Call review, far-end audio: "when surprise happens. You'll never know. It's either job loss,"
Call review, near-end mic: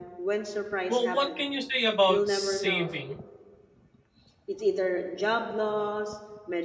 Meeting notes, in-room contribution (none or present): present